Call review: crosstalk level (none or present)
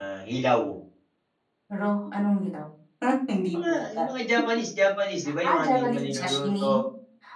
present